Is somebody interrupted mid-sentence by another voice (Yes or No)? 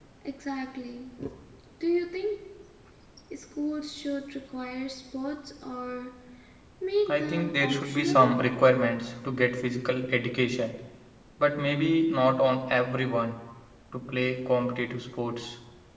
Yes